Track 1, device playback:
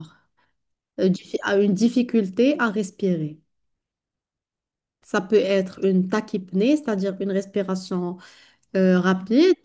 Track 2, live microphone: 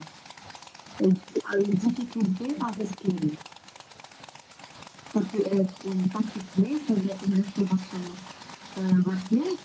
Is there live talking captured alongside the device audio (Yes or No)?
No